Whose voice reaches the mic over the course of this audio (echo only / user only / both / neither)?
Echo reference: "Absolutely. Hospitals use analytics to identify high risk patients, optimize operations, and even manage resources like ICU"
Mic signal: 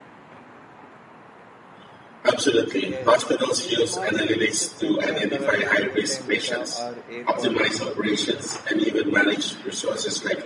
both